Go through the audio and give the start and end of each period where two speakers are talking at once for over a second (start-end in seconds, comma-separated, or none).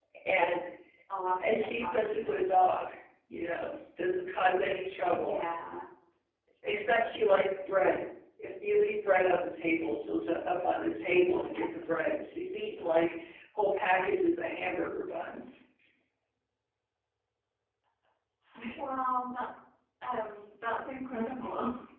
1.4-2.6